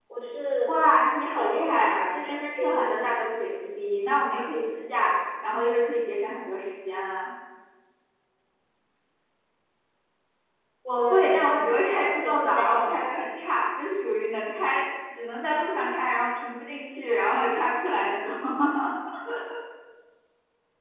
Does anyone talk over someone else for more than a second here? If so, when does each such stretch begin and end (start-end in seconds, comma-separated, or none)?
1.3-3.0, 11.0-13.1